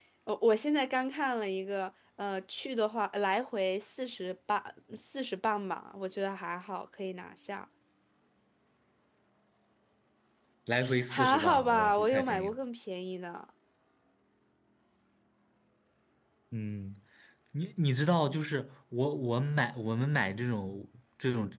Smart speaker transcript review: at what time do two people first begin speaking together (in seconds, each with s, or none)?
11.1 s